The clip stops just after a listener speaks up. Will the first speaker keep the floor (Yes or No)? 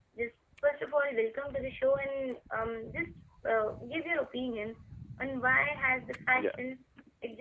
Yes